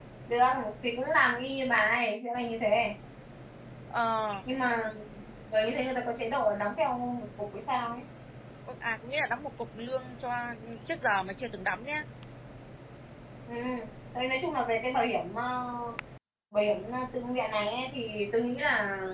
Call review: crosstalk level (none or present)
none